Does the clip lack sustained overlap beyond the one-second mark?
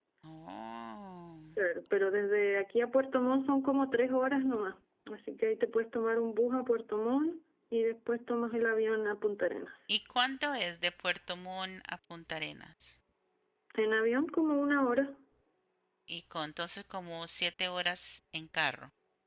Yes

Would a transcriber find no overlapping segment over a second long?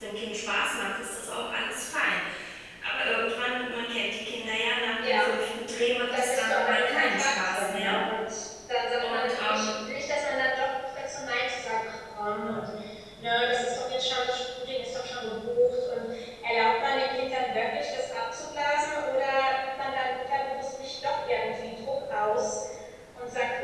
No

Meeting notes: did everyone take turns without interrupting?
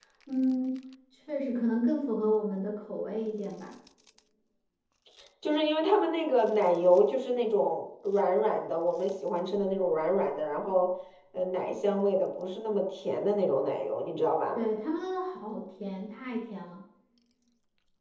Yes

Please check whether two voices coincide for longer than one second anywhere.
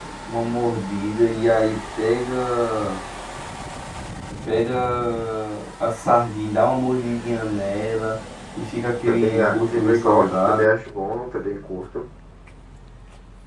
Yes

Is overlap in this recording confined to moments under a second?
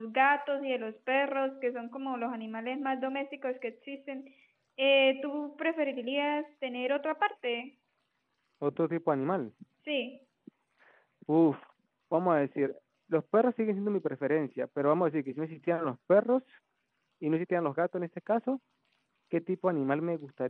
Yes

